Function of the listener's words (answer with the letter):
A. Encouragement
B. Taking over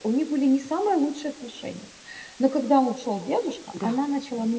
A